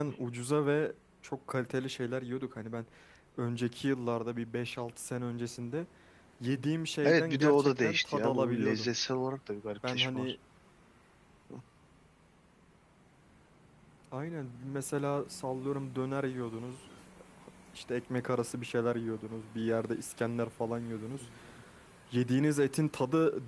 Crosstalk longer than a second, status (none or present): present